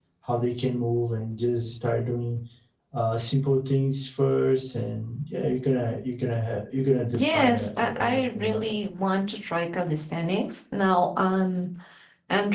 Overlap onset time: 7.1 s

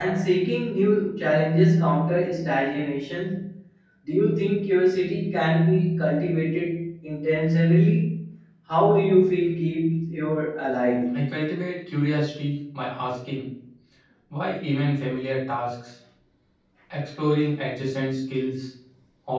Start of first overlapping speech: none

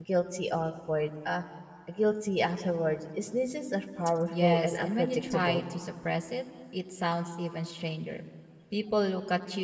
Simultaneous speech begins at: 4.3 s

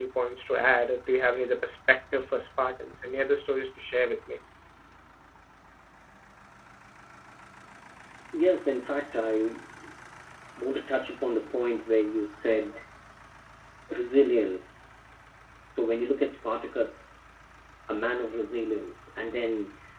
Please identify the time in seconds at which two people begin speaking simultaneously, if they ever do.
none

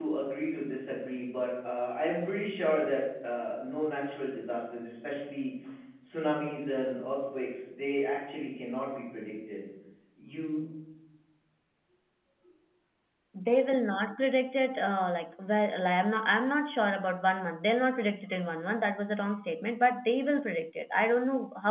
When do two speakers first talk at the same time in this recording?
none

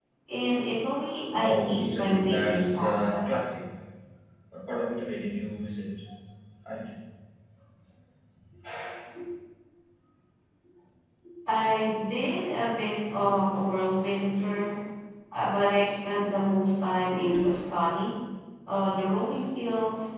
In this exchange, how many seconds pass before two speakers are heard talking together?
1.3 s

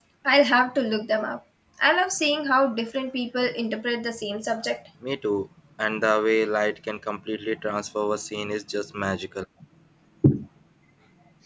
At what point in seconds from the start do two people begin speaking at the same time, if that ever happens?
none

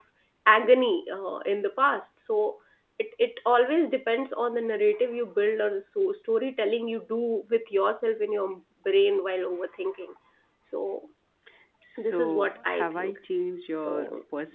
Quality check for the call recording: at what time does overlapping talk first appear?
12.0 s

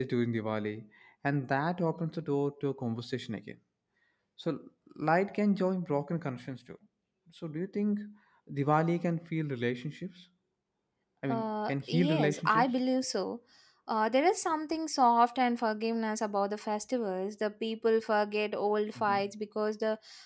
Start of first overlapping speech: 11.3 s

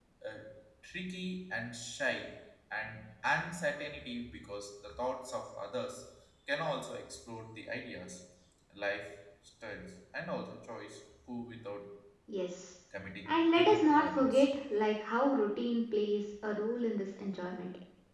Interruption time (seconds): 13.3 s

